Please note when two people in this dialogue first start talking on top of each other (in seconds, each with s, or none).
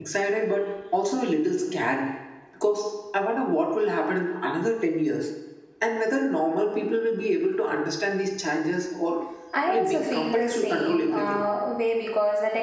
9.6 s